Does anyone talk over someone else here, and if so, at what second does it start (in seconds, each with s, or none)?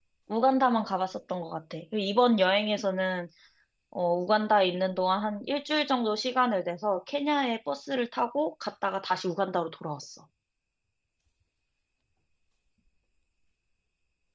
none